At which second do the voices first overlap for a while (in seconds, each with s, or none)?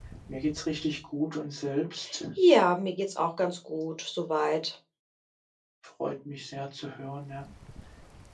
none